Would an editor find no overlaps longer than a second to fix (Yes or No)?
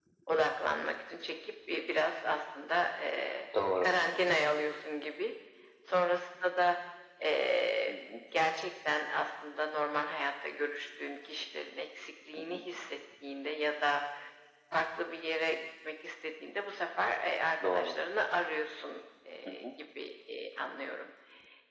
Yes